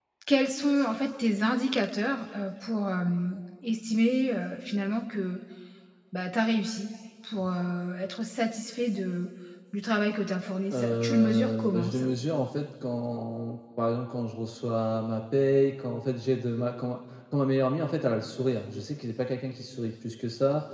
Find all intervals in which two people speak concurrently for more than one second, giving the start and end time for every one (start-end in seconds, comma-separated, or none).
10.7-12.1